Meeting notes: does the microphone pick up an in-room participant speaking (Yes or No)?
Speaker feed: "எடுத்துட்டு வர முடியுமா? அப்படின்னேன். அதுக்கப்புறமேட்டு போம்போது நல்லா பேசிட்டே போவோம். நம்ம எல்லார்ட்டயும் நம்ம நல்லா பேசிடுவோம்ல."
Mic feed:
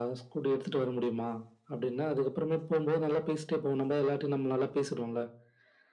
No